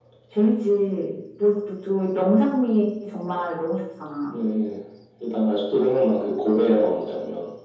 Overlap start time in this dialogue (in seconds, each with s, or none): none